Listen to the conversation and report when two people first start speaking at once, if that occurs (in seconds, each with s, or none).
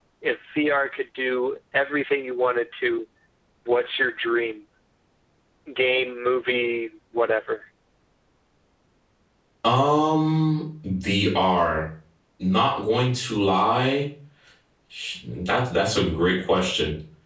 none